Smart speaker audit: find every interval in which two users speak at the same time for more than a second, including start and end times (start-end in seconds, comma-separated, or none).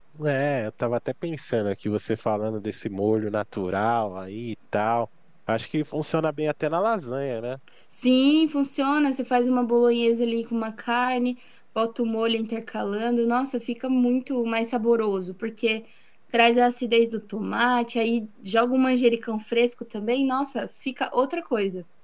none